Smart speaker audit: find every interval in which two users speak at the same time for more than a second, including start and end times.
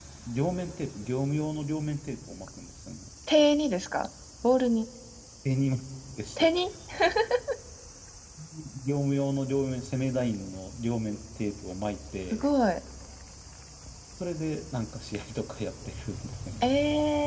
none

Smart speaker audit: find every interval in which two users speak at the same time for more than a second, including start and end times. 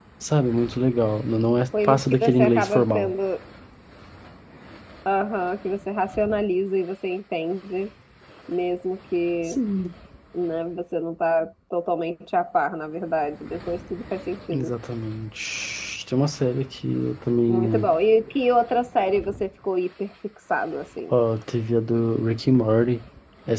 1.8-3.1

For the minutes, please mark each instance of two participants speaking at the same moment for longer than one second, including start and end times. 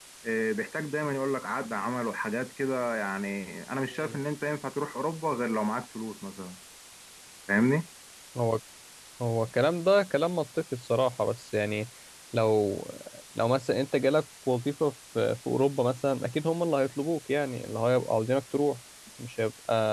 none

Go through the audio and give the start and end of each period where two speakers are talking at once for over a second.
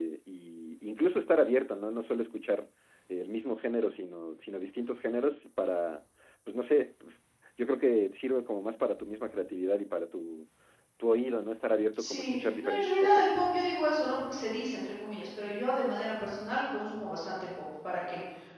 12.0-13.3

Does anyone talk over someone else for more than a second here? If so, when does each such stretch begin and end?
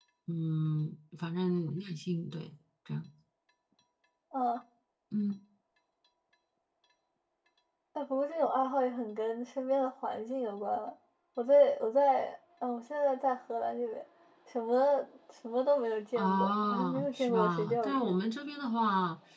16.1-18.1

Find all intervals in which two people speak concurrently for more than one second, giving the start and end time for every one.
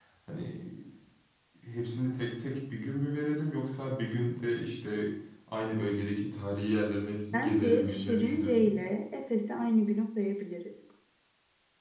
7.3-8.7

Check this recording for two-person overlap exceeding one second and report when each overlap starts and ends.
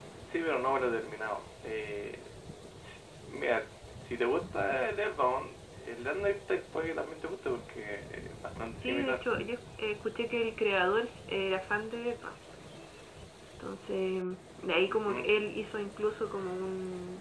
none

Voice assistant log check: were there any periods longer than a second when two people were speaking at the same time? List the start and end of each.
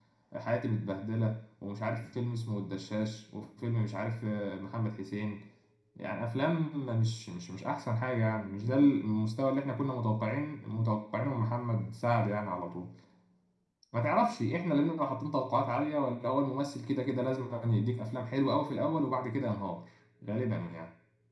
none

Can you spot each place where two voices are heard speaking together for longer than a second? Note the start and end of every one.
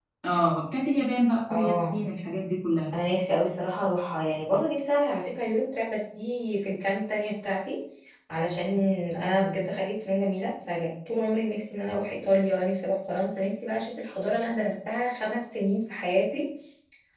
none

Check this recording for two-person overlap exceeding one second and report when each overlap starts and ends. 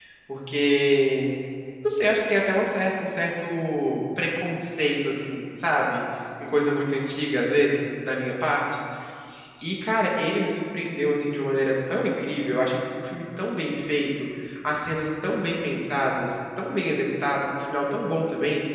none

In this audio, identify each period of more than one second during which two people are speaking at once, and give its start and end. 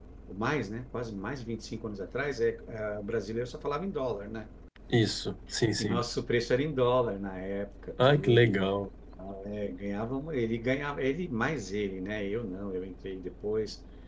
none

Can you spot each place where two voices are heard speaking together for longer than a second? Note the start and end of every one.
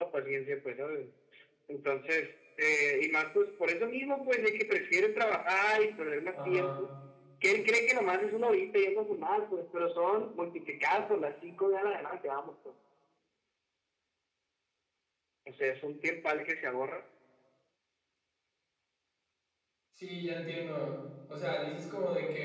none

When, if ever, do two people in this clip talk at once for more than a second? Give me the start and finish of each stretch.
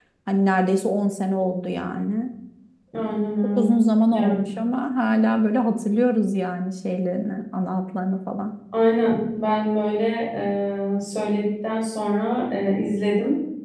none

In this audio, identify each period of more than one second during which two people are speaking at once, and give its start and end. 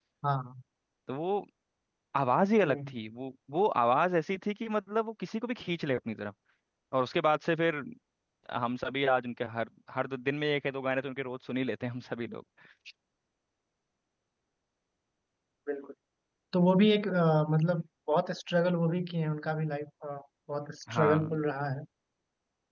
none

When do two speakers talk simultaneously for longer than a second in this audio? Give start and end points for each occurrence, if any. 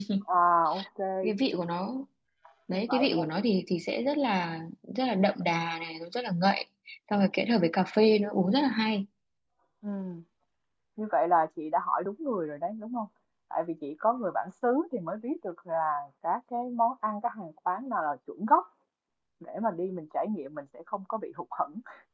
none

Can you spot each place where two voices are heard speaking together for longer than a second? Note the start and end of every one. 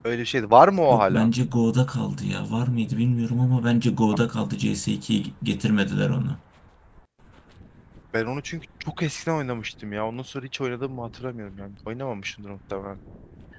none

